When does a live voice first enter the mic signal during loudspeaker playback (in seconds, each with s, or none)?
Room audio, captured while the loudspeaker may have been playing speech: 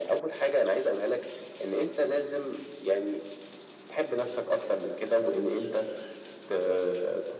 none